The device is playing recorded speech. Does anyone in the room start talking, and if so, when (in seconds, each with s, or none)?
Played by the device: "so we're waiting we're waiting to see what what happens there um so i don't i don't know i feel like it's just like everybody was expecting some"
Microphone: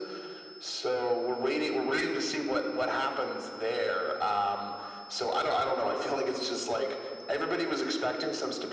none